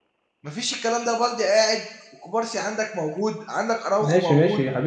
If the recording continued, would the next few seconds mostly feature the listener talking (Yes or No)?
Yes